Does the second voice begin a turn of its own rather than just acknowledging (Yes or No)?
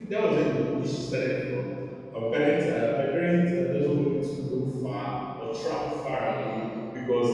No